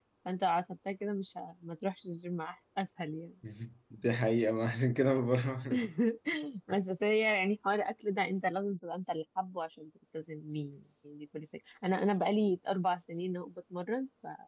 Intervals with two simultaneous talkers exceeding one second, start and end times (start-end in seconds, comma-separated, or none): none